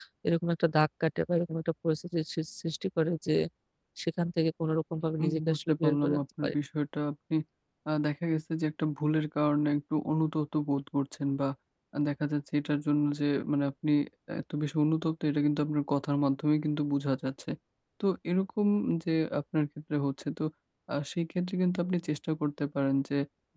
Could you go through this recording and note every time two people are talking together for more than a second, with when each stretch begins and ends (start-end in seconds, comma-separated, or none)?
5.2-6.5